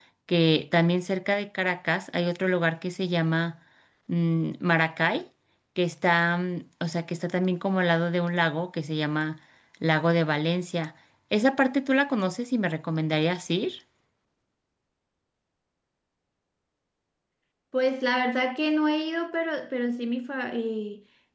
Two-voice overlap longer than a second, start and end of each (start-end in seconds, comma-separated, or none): none